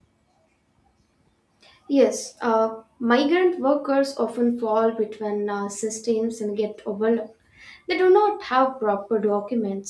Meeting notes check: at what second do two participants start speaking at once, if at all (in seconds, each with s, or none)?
none